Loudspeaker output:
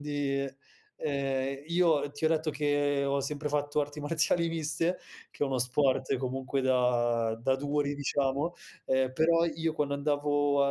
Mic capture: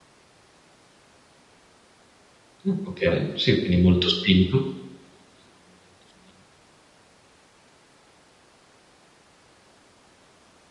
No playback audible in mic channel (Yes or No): Yes